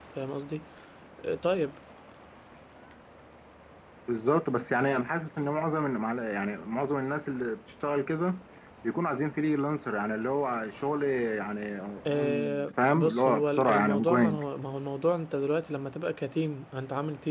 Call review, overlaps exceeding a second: present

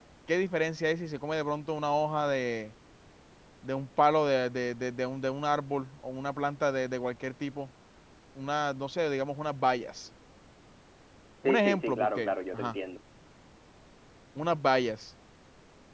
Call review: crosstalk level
present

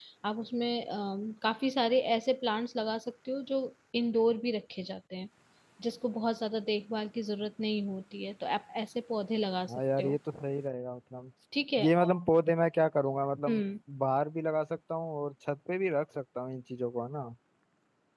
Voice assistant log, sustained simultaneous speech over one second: none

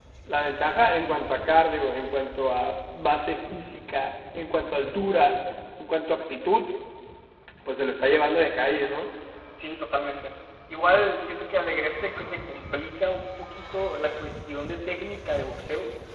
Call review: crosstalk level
none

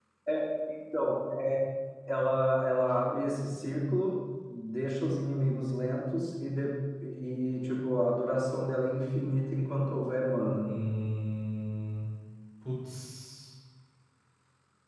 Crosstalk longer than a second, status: none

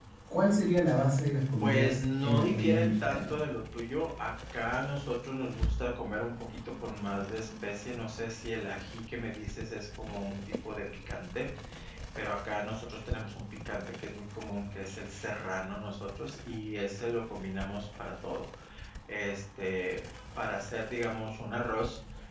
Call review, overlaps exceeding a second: present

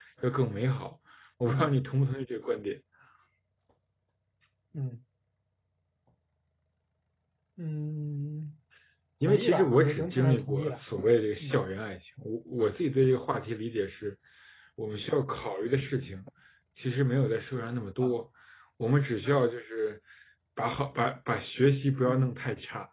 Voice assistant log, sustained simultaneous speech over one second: present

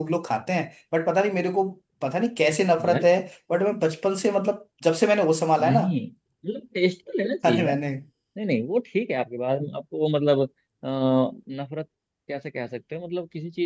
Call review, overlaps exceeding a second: none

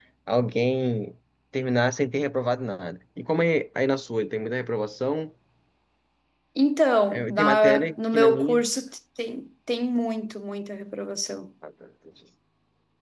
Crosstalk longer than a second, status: present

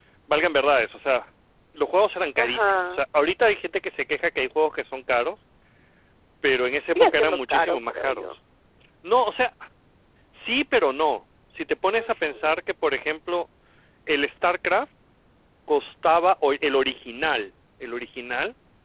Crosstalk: present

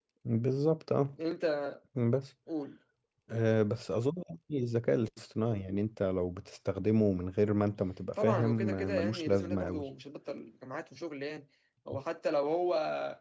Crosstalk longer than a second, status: present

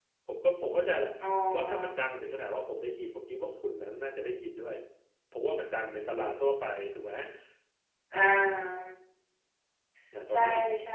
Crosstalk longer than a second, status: none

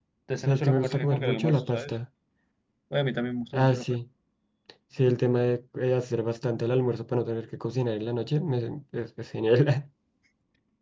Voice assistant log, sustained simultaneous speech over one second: present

